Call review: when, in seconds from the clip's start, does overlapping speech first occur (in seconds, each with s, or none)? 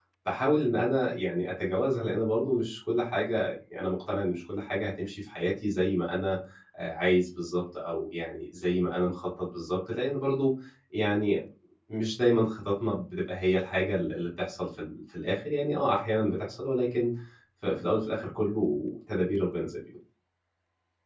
none